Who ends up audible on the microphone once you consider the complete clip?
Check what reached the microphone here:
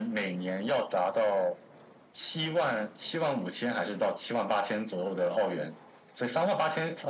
echo only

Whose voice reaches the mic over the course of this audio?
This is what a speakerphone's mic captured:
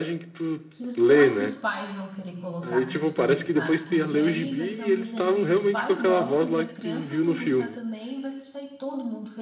both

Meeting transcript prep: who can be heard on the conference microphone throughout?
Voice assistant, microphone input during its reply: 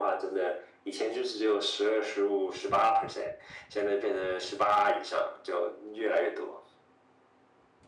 echo only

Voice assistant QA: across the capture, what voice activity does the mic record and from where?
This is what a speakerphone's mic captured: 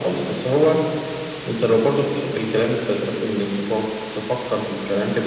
echo only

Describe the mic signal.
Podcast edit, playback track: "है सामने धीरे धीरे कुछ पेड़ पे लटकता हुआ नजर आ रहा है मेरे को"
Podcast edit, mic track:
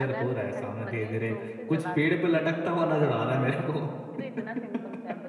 both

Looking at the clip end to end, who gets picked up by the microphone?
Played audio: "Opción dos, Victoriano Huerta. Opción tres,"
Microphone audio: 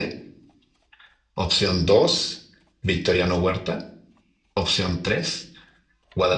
echo only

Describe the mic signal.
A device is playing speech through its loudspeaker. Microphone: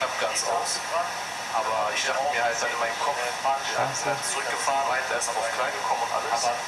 both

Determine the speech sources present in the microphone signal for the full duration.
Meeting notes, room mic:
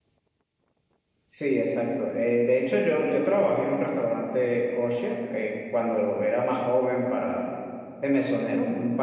user only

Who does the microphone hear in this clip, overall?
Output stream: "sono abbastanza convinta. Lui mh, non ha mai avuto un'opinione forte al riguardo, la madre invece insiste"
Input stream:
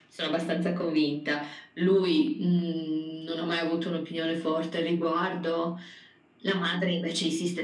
echo only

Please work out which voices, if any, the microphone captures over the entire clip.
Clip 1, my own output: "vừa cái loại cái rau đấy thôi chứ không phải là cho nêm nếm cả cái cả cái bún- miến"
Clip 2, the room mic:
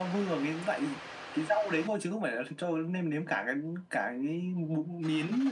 echo only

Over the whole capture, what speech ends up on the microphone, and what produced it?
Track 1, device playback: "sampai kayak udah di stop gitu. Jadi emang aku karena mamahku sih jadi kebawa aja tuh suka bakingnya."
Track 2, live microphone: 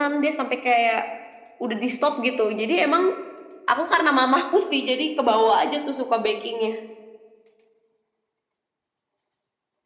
echo only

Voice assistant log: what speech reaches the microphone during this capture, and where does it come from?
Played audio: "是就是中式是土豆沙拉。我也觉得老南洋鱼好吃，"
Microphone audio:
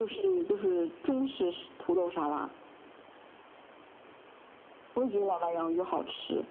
echo only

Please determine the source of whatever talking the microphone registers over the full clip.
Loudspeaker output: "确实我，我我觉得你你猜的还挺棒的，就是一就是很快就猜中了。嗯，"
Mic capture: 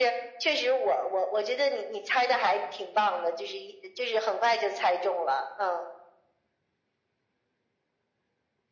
echo only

